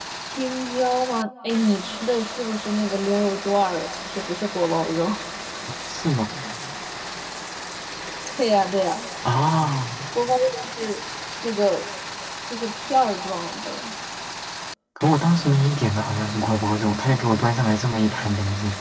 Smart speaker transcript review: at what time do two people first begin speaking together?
none

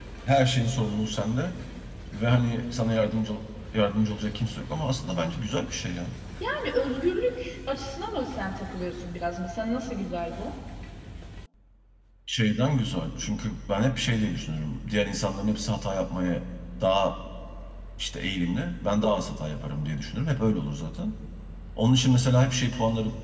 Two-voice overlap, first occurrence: none

